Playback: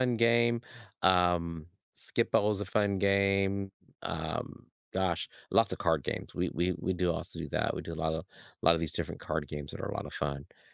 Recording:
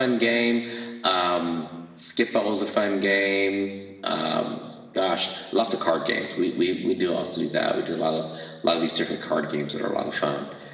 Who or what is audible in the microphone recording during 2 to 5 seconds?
echo only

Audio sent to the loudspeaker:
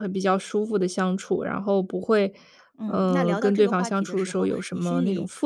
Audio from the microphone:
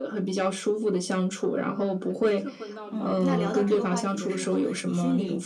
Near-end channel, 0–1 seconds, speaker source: echo only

